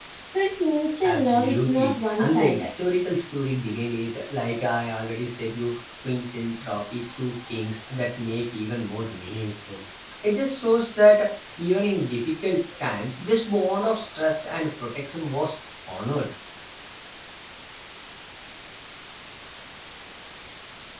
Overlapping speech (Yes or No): Yes